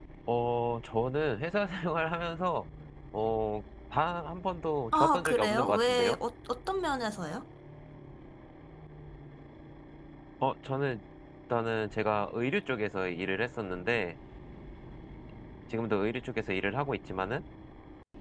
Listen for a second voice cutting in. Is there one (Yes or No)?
Yes